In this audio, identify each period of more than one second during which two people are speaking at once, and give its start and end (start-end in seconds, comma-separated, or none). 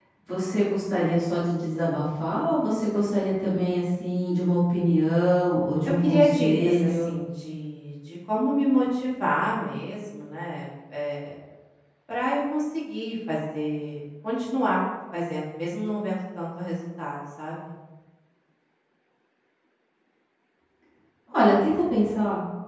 5.8-7.1